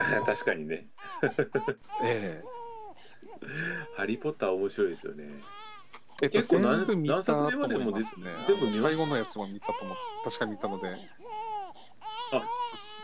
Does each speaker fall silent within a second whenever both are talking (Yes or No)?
No